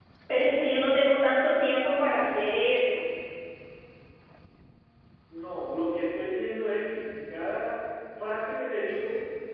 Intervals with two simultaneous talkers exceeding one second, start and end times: none

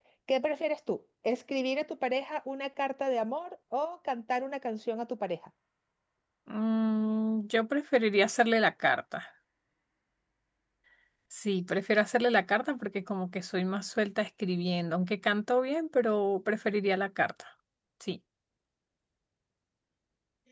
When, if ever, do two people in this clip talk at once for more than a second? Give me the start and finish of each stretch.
none

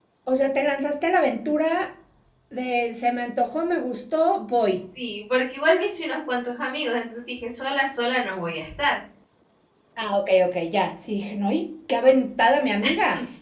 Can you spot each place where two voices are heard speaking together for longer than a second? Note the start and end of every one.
none

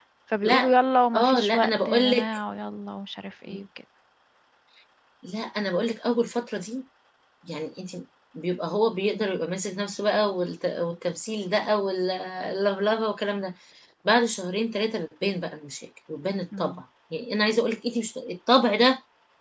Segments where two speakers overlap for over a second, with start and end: 1.1-2.4

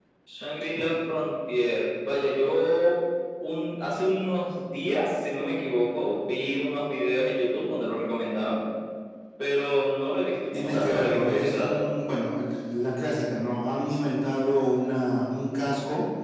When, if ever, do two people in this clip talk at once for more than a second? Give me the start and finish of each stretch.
10.5-11.8

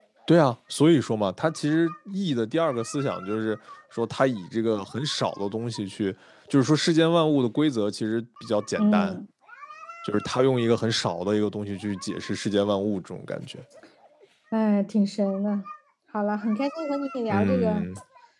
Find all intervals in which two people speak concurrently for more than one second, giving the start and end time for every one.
none

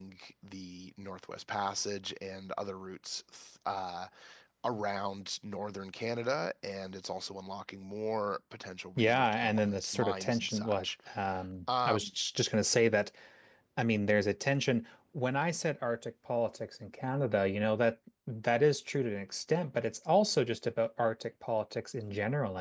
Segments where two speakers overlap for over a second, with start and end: 9.0-10.8

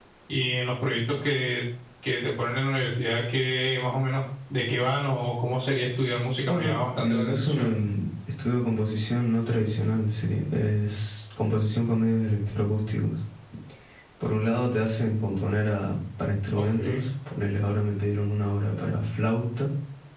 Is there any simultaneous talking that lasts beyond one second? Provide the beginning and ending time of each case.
6.5-7.7

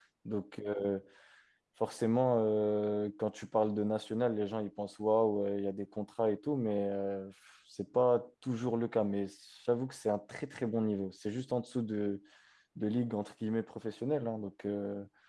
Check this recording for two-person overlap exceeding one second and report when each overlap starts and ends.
none

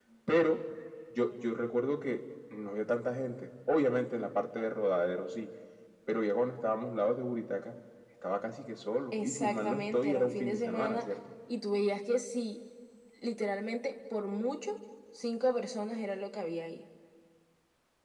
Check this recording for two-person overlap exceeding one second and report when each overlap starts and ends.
9.1-11.1

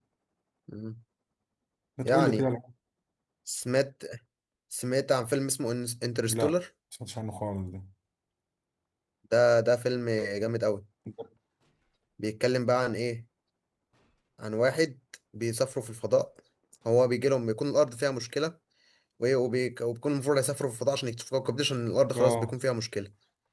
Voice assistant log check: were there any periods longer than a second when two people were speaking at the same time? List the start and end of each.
none

